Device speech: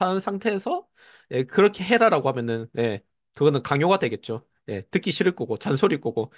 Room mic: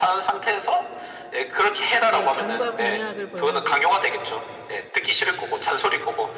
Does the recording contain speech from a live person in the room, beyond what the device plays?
Yes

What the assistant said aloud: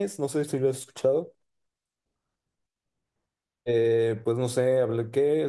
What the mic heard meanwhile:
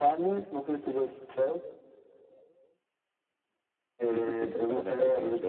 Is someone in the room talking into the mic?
Yes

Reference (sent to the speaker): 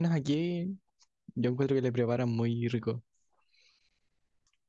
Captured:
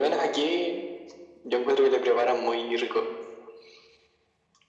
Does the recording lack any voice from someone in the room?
Yes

